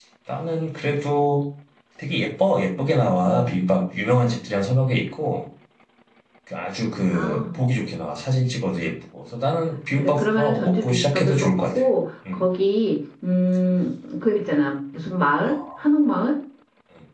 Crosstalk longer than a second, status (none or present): present